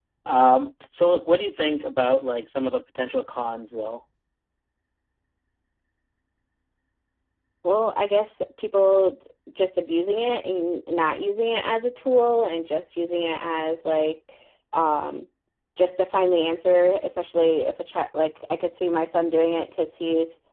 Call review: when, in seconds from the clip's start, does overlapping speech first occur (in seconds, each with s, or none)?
none